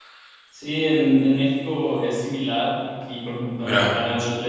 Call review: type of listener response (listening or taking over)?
listening